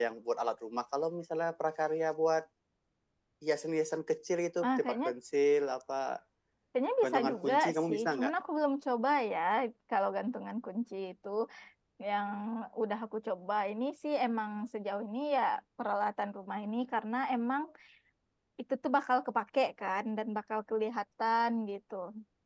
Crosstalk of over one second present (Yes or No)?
Yes